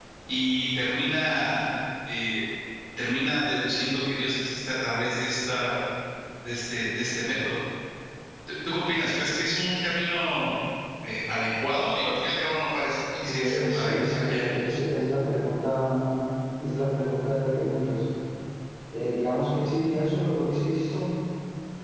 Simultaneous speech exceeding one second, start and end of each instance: 13.2-14.4

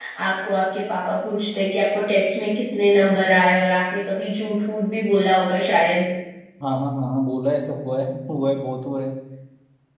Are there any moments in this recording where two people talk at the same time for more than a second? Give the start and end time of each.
none

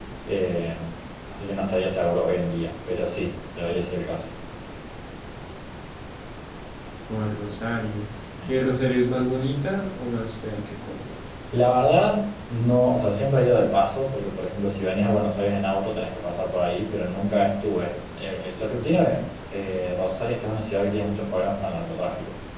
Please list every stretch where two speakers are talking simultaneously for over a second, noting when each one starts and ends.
none

